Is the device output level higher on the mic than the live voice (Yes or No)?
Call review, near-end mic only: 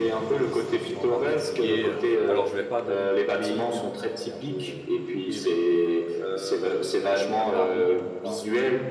Yes